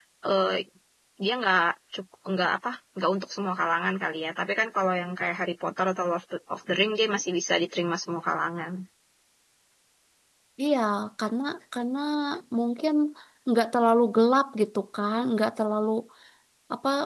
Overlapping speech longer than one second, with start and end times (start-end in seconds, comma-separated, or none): none